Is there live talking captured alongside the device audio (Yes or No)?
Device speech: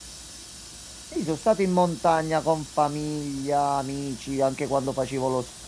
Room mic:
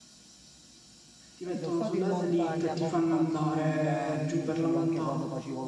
Yes